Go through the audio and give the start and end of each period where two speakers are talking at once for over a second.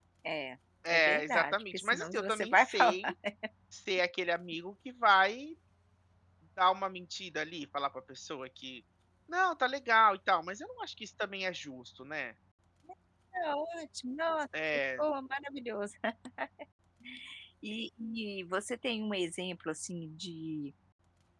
0.9-2.9

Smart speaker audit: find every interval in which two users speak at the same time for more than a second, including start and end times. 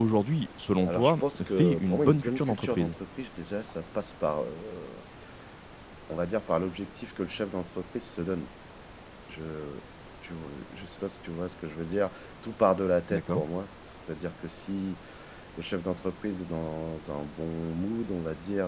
0.8-3.0

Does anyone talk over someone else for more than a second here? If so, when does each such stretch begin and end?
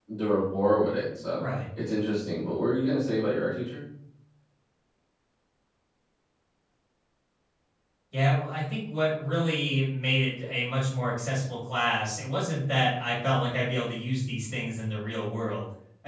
none

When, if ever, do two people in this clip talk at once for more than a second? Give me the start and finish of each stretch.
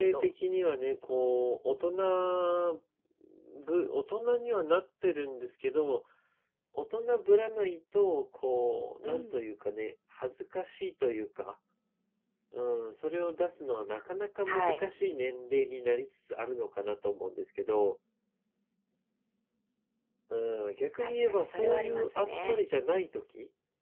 21.0-22.6

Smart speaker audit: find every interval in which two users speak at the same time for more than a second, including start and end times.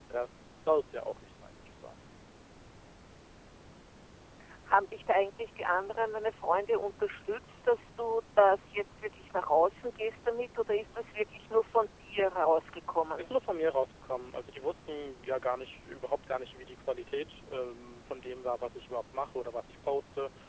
none

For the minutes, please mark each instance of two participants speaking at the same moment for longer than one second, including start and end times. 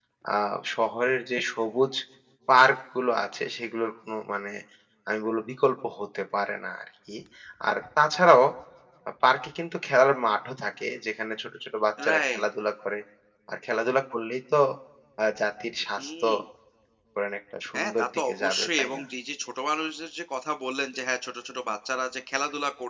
17.8-19.0

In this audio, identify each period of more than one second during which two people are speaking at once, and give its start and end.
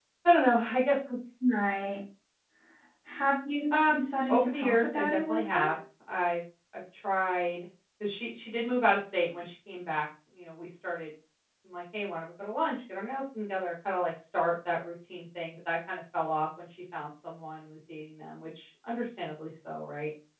3.9-5.8

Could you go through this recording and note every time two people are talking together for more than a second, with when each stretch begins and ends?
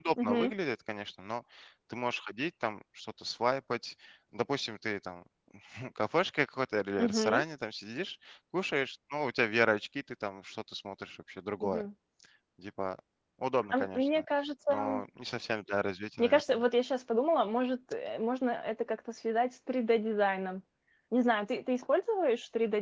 none

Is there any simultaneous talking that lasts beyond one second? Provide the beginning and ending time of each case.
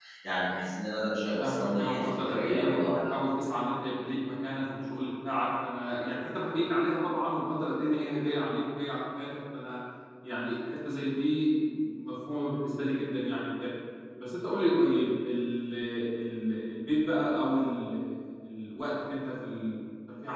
1.4-3.1

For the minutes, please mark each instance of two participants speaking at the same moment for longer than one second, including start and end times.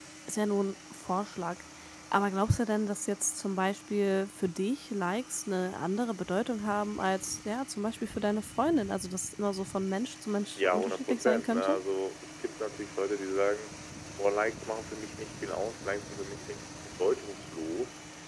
10.6-11.8

